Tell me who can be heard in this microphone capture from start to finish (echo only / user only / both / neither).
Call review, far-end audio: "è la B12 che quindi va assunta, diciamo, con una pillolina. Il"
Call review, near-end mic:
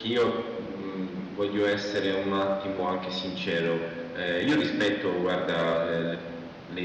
user only